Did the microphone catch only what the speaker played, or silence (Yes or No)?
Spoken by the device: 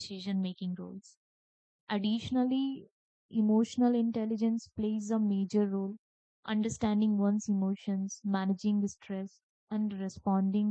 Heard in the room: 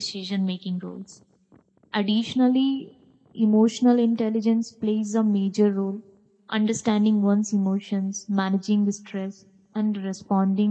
Yes